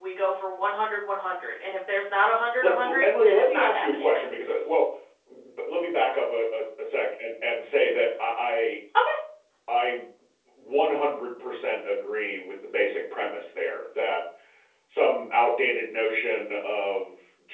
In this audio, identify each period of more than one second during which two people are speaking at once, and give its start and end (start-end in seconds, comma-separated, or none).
2.6-4.1